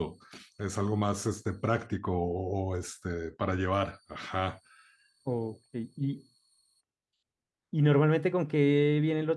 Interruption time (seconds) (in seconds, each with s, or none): none